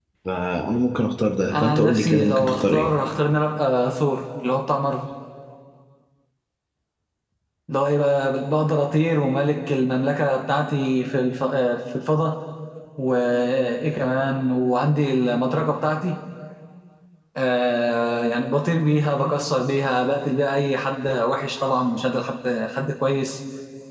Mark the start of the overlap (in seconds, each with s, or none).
1.5 s